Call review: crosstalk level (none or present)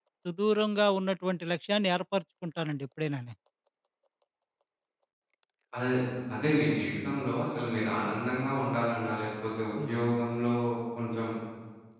none